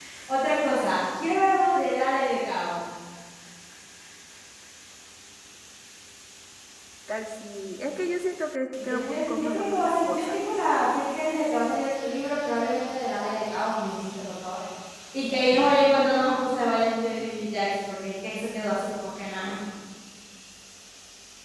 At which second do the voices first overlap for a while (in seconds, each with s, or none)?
8.8 s